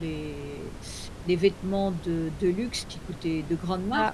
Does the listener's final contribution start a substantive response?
No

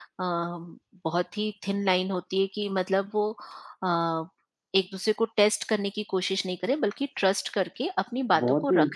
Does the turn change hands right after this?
Yes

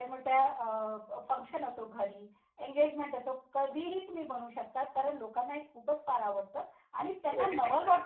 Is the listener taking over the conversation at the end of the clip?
No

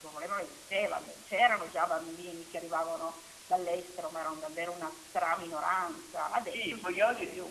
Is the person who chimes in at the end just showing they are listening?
No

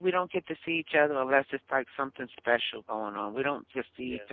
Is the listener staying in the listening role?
Yes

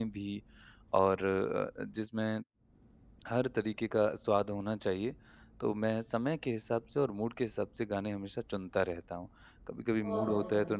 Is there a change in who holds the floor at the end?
No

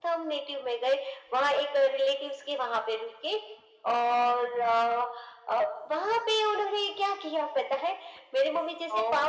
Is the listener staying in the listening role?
Yes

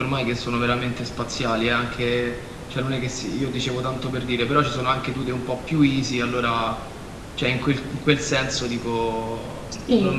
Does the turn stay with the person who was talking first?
Yes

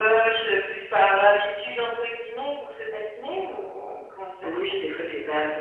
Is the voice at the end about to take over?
Yes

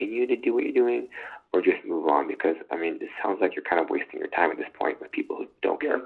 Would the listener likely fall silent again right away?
No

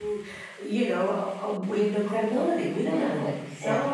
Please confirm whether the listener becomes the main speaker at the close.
Yes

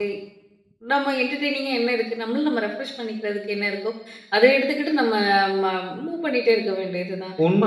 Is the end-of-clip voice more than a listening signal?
Yes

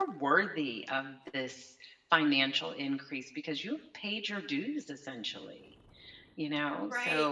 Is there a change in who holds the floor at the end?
Yes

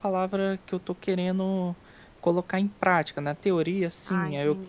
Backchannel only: Yes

